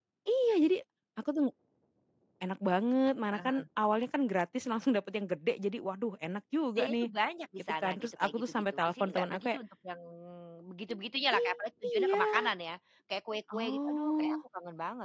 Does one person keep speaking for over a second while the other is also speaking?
Yes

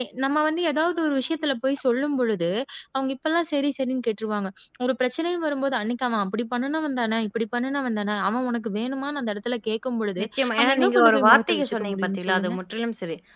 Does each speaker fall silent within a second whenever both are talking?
No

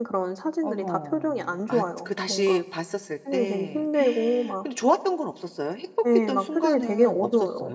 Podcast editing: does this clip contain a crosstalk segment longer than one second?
Yes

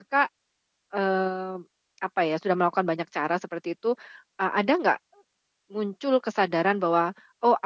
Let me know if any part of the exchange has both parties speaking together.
No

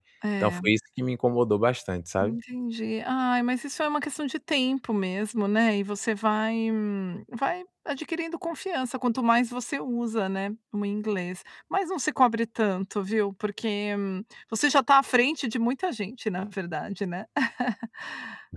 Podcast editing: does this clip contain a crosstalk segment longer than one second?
No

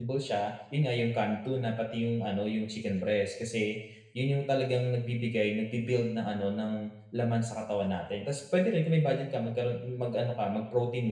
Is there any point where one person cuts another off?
No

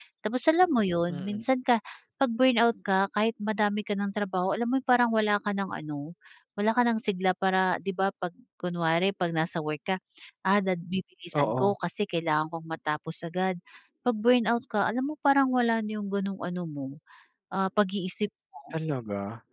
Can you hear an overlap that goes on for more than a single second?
No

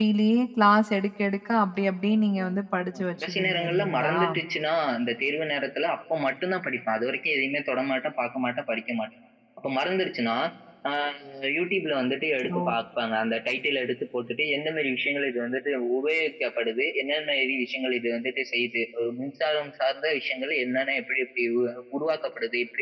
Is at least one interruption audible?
Yes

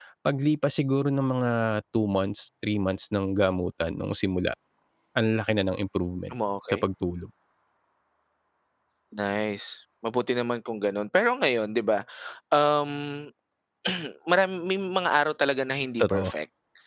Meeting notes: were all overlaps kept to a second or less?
Yes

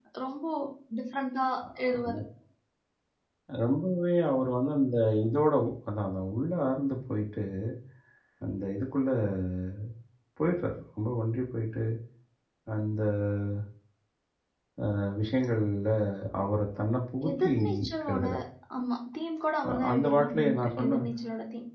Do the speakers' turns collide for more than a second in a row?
Yes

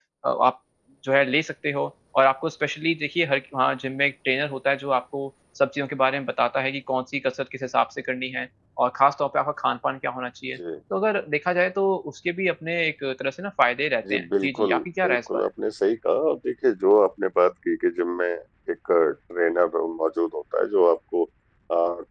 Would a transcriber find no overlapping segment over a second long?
No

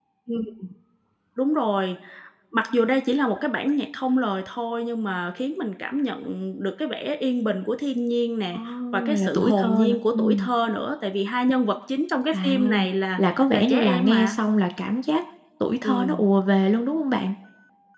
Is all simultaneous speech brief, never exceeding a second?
No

